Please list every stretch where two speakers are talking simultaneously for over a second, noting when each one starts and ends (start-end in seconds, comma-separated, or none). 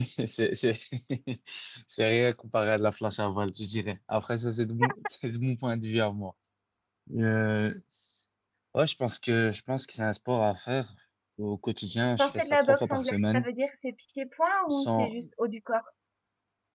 12.2-13.5